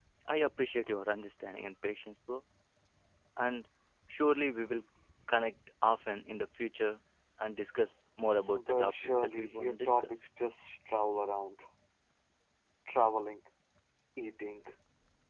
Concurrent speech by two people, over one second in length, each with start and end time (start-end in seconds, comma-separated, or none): 8.5-10.1